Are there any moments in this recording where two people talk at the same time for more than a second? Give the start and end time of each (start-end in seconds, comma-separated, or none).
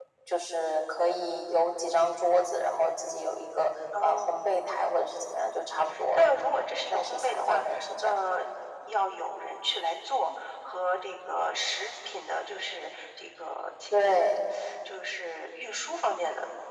6.1-8.2